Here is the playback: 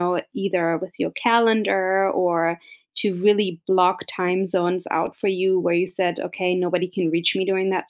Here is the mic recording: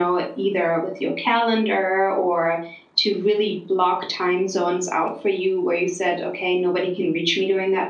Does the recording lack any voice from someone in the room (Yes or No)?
Yes